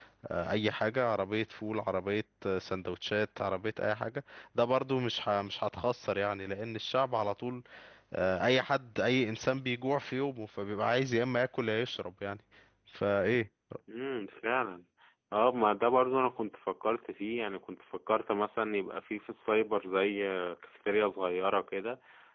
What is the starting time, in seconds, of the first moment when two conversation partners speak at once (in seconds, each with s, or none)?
none